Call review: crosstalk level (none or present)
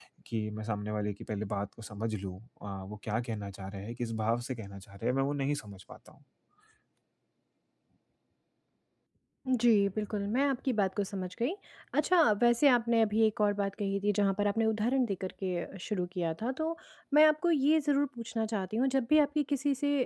none